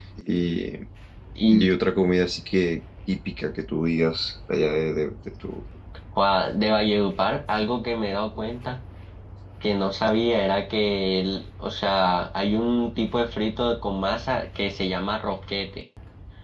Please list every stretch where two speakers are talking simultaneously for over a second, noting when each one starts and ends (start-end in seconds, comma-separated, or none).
none